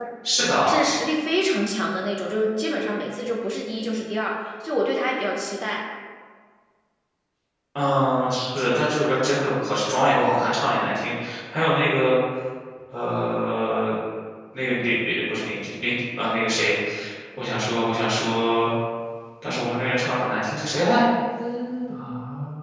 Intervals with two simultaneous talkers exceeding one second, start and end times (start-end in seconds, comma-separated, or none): none